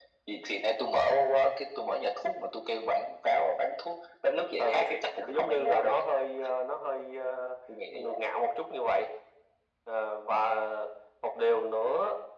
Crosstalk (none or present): present